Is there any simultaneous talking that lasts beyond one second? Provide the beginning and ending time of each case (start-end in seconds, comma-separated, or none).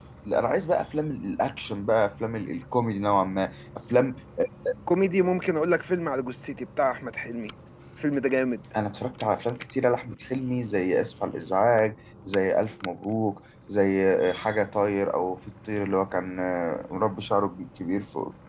none